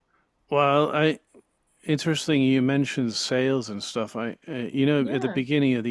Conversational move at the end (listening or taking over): listening